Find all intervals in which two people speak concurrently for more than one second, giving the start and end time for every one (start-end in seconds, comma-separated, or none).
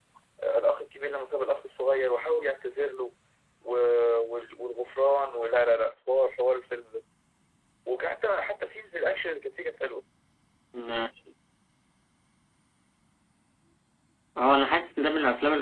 none